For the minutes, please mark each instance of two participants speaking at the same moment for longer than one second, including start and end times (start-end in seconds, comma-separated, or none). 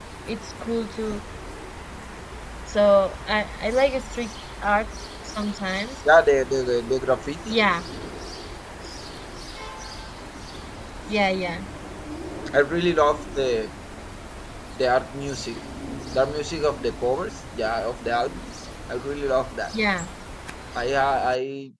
none